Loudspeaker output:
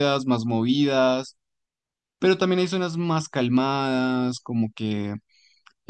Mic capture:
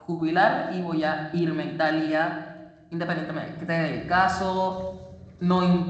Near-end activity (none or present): present